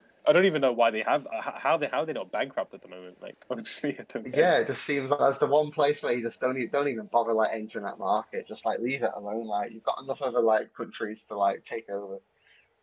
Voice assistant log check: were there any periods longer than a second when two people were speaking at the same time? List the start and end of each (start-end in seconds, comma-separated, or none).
none